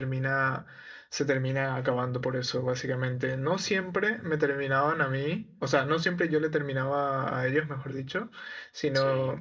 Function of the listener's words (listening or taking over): listening